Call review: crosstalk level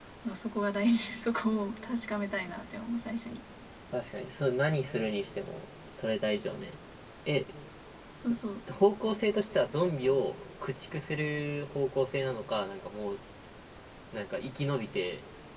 none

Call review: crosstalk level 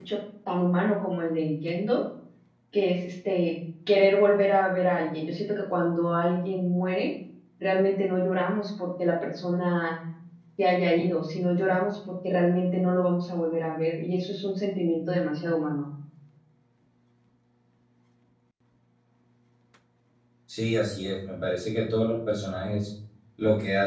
none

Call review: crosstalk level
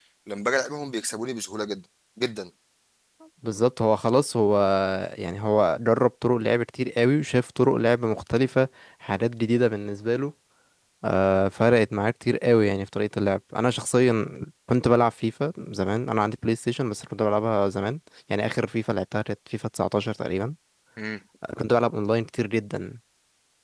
none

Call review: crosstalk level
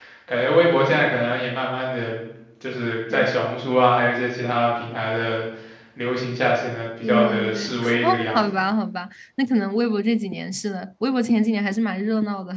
present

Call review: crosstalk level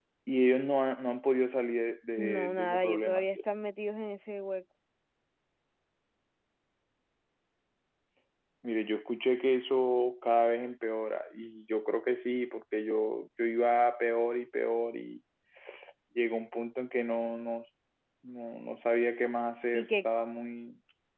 present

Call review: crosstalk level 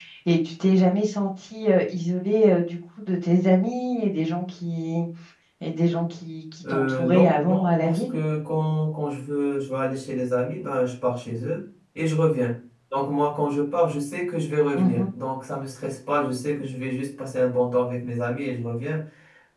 present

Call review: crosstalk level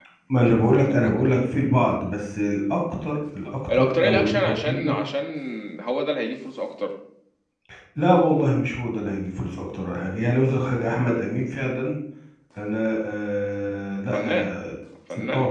present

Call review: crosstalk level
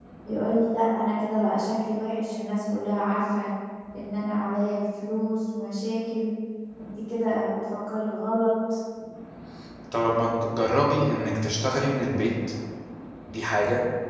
none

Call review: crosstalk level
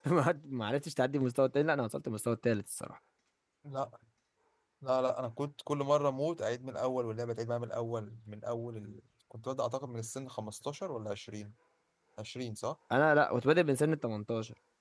none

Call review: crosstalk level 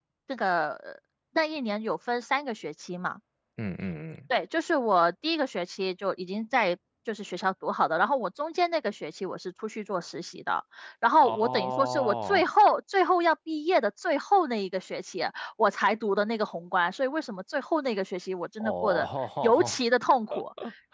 present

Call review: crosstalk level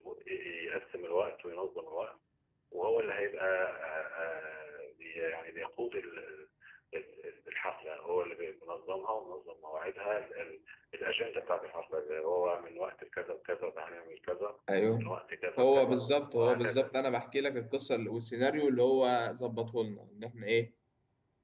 present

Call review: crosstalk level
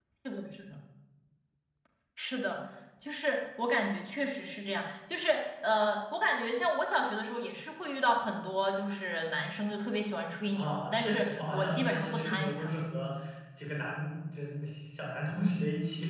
present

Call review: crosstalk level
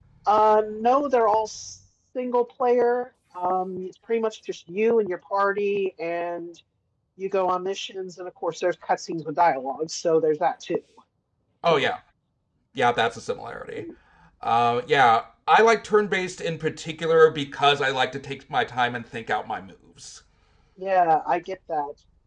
none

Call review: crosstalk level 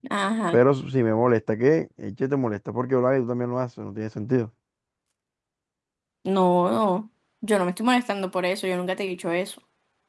none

